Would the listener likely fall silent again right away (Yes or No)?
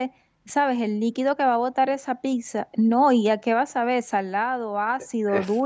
No